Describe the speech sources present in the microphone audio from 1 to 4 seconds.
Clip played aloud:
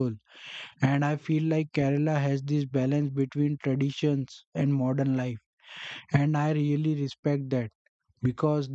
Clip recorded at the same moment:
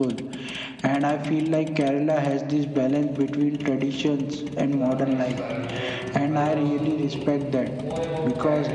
echo only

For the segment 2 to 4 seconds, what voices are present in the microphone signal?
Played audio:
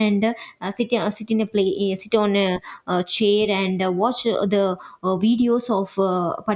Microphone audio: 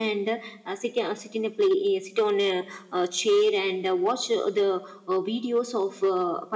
echo only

